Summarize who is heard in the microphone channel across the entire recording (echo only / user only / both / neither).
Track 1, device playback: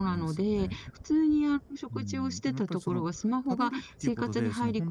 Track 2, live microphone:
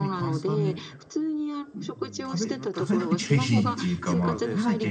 both